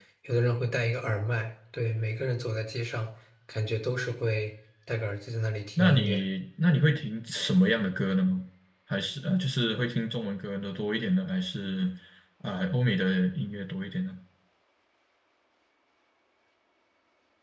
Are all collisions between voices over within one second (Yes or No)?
Yes